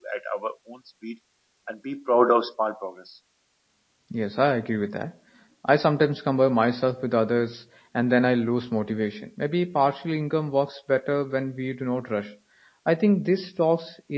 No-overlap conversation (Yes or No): Yes